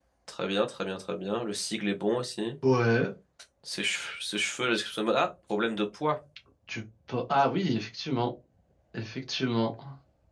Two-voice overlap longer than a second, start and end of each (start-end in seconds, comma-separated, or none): none